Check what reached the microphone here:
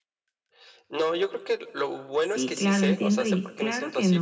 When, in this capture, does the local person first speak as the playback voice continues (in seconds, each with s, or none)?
2.2 s